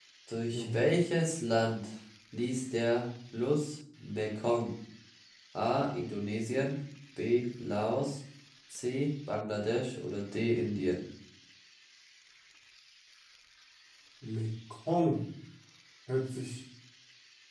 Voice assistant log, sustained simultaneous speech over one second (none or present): none